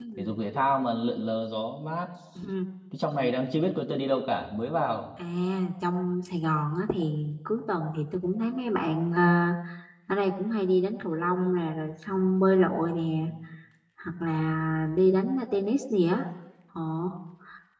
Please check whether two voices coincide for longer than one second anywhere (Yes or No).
No